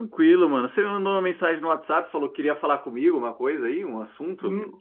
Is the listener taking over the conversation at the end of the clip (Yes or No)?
Yes